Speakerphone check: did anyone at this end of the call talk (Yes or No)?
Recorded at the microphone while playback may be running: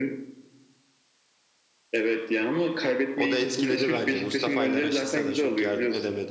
Yes